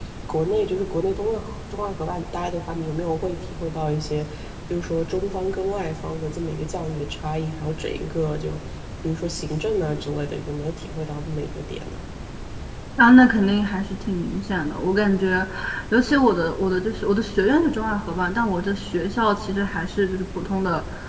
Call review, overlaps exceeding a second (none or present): none